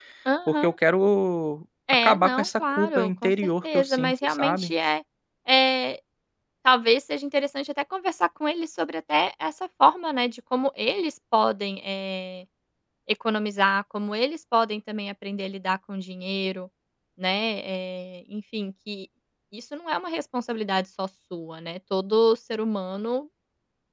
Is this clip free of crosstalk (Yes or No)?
No